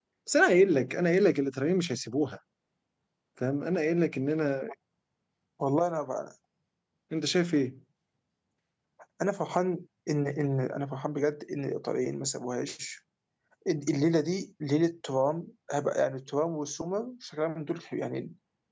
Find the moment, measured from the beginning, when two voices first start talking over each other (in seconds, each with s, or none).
none